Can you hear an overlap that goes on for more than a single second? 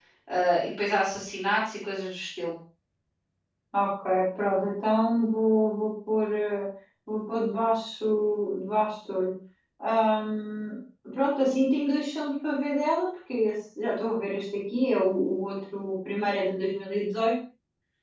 No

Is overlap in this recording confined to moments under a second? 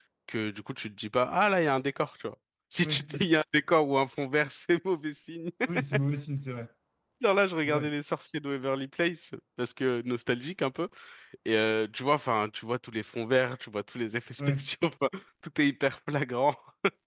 Yes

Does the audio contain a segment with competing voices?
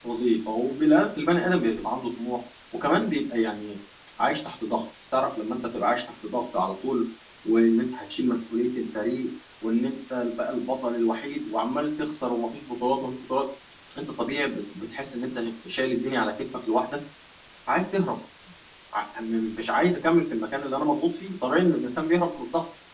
No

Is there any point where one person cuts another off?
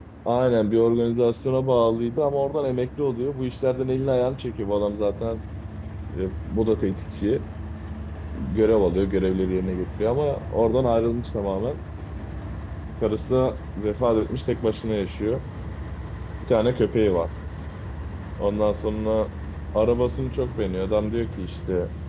No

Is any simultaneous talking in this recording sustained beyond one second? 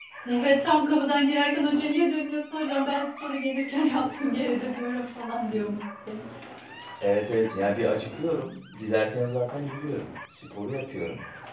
No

